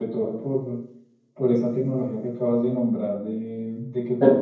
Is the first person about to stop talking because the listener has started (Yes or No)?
No